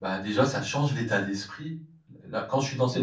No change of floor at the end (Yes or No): Yes